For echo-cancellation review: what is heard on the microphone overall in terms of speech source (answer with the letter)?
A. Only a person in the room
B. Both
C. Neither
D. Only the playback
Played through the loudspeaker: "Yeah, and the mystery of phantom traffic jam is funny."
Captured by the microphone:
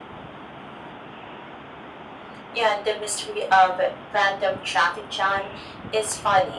D